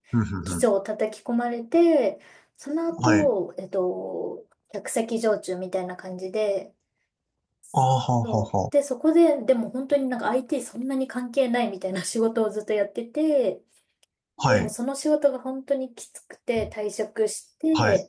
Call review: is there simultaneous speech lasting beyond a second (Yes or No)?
No